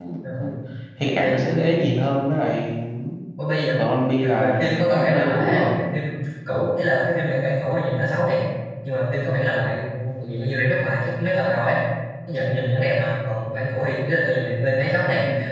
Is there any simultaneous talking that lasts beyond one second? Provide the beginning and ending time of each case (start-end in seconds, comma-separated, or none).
4.2-5.7